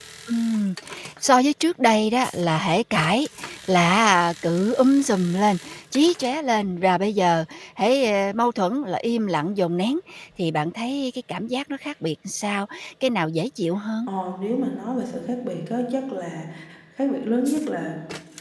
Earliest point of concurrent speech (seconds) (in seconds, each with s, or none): none